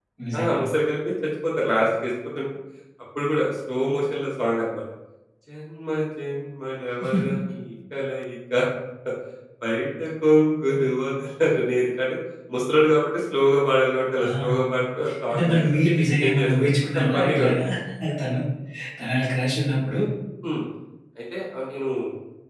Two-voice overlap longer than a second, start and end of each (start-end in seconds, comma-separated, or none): 16.3-17.6